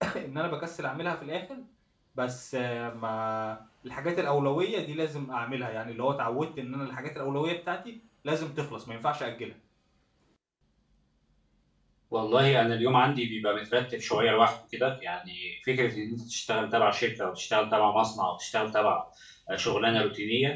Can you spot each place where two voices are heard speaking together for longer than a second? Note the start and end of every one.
none

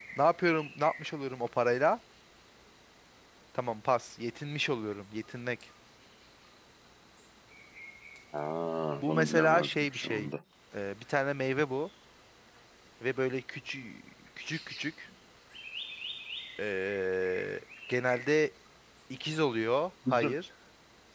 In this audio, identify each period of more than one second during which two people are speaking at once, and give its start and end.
9.0-10.3

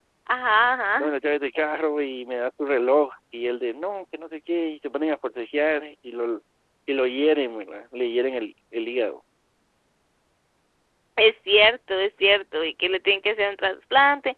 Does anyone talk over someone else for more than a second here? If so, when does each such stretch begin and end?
none

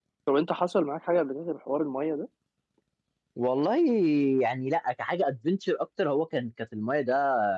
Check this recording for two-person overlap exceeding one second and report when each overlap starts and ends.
none

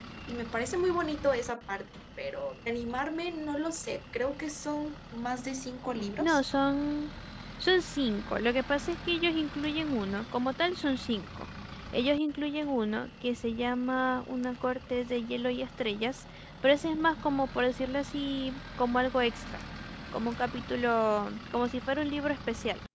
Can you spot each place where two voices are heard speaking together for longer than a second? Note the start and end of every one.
none

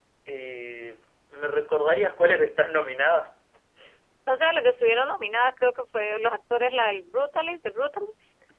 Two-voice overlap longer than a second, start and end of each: none

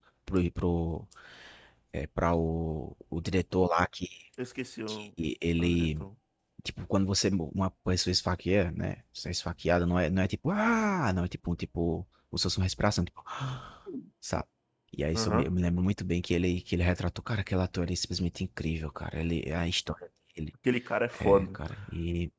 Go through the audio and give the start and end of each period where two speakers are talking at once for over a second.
none

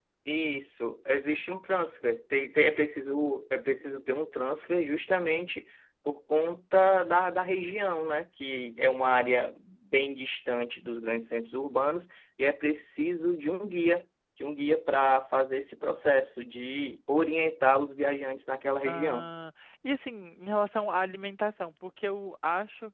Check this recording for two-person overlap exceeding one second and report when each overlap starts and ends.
none

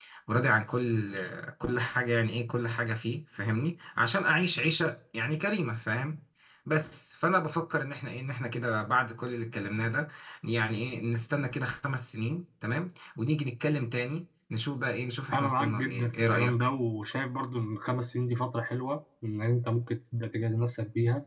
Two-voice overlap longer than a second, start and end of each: 15.3-16.6

